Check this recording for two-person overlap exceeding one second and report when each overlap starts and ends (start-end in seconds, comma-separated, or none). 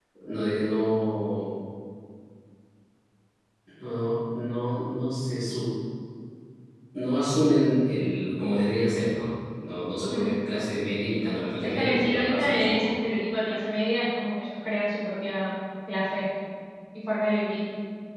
11.6-12.8